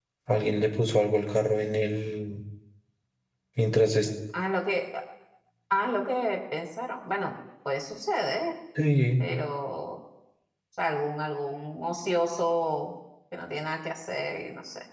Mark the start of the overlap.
none

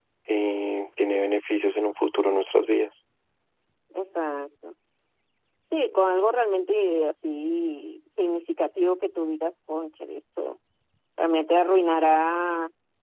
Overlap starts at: none

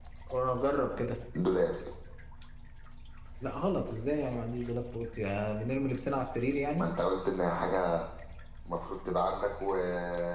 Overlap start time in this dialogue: none

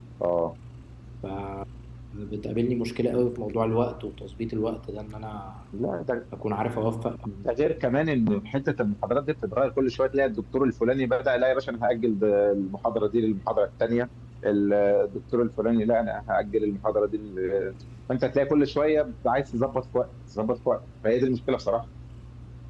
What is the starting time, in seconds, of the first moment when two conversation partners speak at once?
none

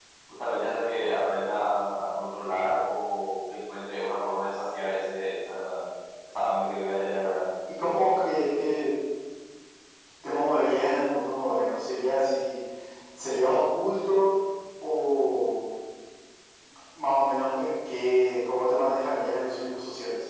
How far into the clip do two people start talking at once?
none

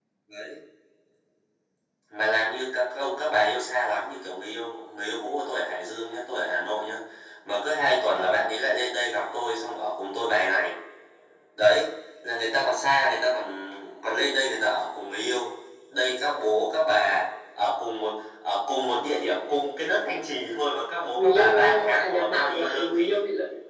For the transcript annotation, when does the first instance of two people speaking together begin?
21 s

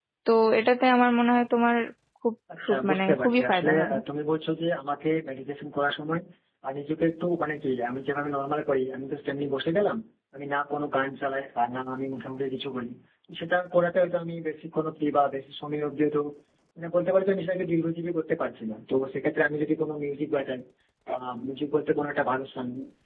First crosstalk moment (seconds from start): 3 s

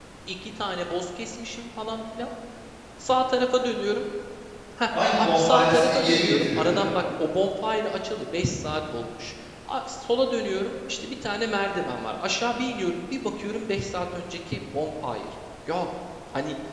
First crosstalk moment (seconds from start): 5 s

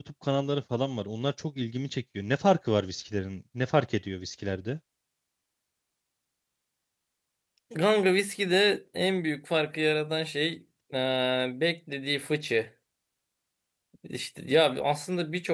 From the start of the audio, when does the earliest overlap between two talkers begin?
none

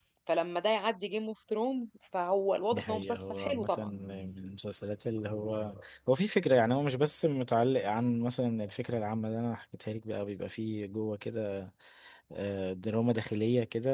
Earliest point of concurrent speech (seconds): 3 s

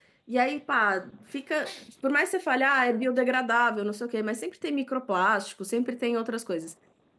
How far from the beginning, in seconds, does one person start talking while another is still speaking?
none

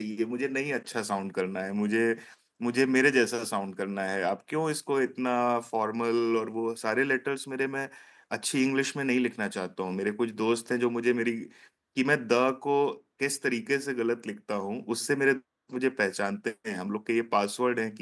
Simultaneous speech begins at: none

